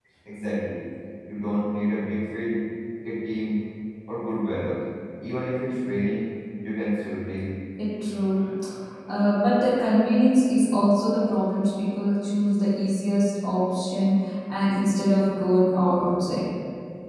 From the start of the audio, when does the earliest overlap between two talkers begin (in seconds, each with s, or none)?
none